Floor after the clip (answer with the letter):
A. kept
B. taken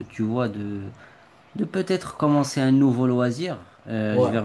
A